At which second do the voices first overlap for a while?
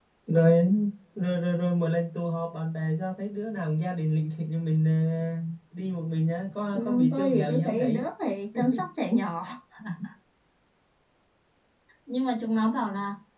6.7 s

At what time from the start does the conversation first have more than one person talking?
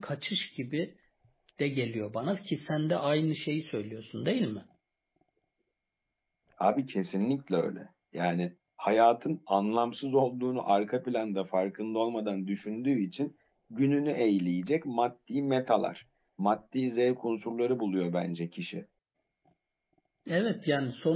none

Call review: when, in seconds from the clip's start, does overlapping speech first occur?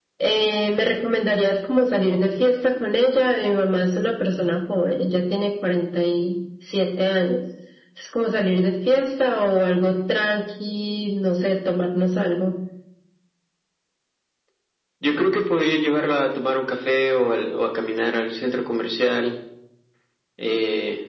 none

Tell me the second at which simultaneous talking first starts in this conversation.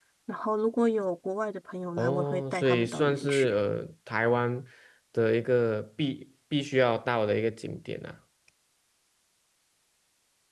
2.0 s

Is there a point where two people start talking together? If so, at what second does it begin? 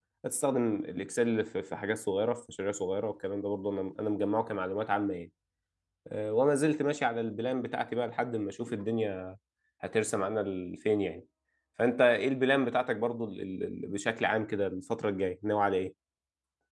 none

